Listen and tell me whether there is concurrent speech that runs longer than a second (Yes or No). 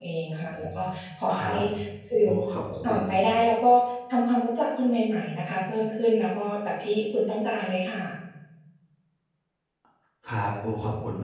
No